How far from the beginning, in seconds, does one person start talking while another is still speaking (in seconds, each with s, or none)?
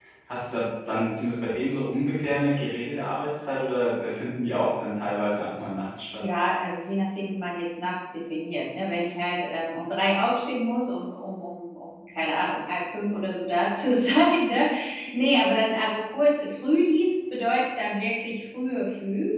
none